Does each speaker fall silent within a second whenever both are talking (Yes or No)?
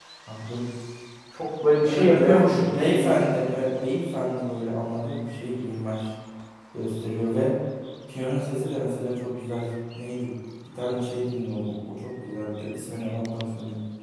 No